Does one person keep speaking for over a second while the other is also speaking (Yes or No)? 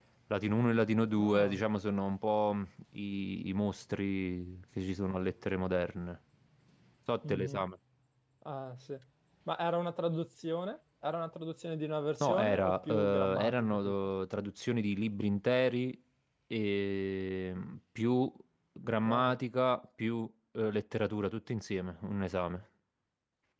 Yes